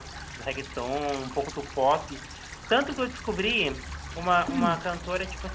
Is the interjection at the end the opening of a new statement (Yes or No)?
No